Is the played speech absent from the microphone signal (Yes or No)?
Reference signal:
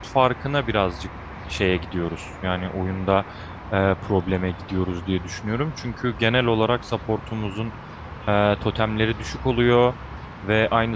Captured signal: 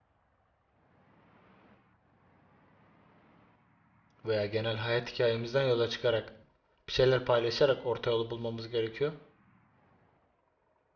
Yes